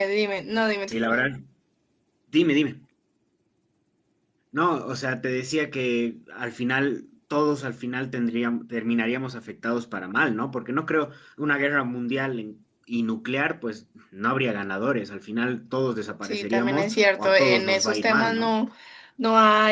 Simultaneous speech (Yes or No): Yes